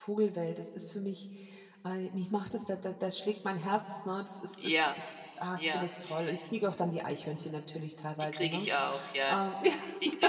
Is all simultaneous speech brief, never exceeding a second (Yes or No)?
Yes